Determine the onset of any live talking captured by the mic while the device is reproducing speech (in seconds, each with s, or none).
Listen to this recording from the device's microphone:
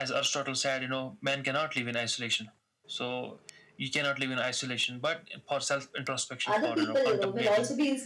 6.5 s